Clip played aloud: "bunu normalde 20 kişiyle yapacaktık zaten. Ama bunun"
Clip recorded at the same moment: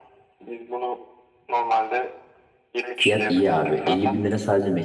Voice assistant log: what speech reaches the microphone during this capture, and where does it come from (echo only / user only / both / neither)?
both